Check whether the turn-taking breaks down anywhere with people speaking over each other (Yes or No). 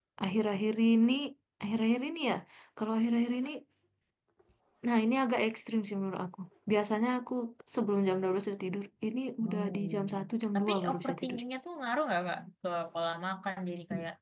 Yes